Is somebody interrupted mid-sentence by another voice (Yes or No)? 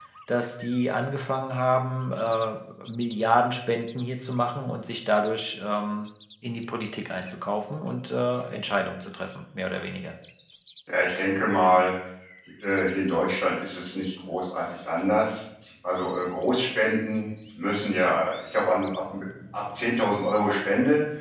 No